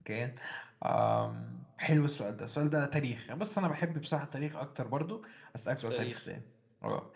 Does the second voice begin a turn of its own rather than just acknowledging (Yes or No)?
No